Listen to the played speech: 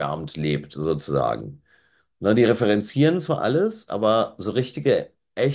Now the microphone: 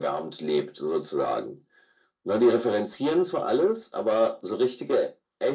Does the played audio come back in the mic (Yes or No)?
Yes